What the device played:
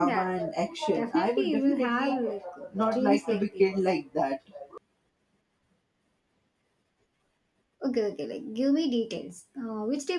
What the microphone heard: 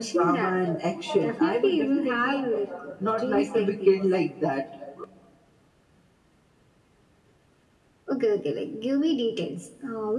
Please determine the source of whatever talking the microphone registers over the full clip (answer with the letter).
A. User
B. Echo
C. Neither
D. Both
B